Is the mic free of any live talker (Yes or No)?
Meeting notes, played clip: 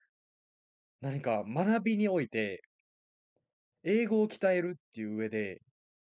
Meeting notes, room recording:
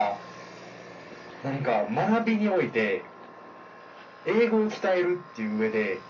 Yes